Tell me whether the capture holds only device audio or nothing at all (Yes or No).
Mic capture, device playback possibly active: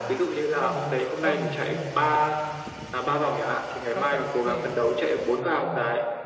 No